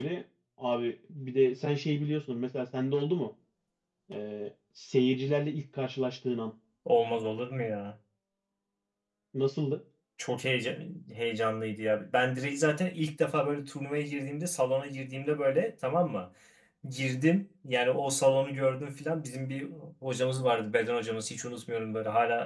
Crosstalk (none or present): none